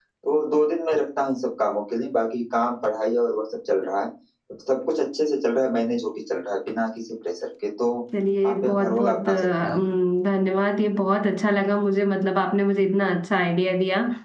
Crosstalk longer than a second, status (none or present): present